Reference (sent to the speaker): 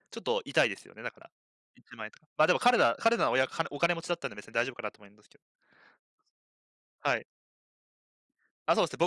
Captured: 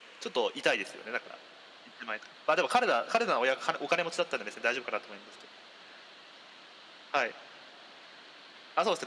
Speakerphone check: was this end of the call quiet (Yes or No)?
Yes